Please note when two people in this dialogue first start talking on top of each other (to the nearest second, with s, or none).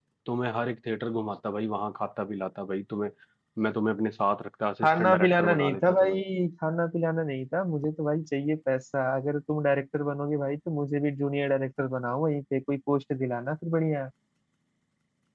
5 s